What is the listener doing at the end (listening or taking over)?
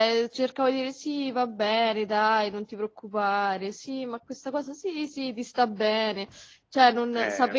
taking over